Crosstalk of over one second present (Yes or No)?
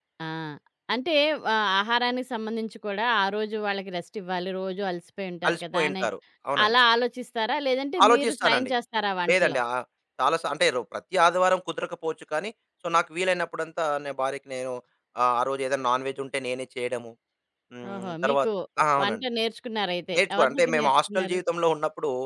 Yes